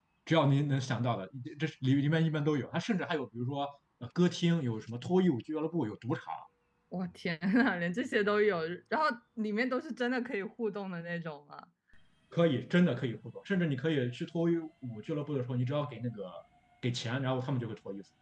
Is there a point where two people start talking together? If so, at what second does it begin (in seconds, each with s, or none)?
none